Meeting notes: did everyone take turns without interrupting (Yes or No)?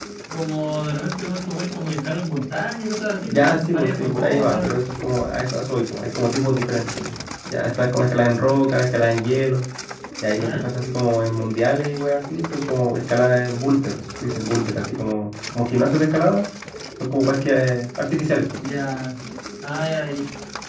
No